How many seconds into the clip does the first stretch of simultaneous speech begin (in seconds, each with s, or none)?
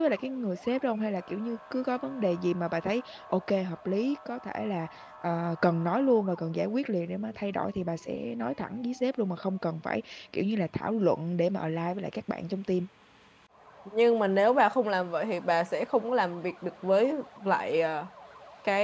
none